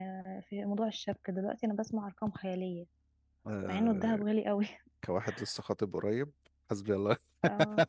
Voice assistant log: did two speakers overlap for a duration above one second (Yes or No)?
No